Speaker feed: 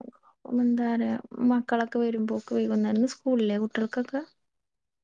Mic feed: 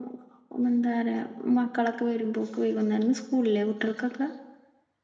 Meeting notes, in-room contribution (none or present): none